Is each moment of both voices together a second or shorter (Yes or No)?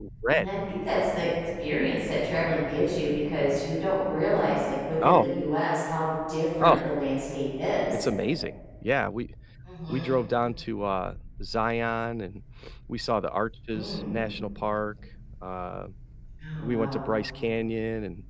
Yes